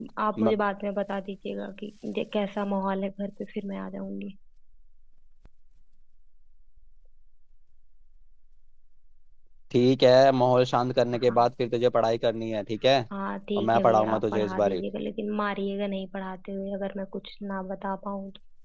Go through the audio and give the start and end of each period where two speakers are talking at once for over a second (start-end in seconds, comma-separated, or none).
13.6-14.8